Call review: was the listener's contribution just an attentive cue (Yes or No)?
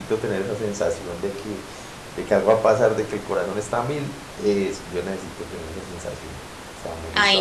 No